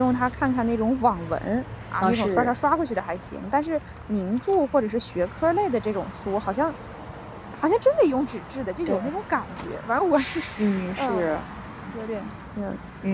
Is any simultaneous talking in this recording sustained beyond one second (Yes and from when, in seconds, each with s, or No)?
No